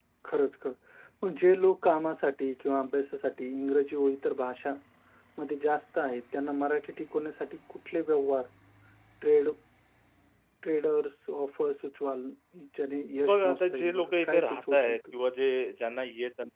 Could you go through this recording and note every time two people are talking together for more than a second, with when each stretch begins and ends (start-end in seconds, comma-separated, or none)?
13.3-15.0